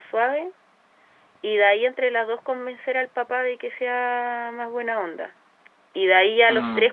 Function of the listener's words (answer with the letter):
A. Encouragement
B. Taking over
A